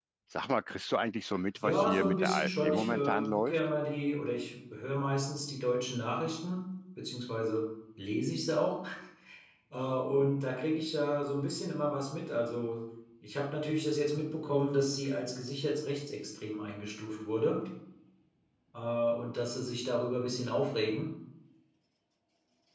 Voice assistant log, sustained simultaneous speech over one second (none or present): present